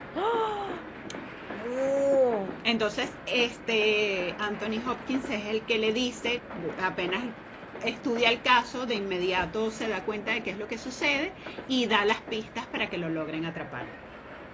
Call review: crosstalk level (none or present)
none